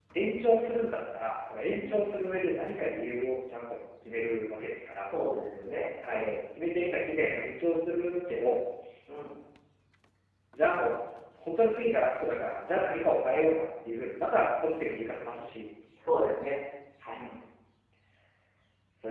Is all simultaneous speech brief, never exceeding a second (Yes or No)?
Yes